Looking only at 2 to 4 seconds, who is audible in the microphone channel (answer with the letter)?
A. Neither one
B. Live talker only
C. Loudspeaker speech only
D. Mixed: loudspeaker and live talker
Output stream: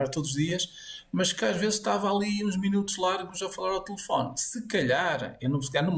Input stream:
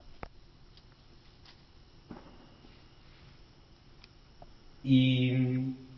A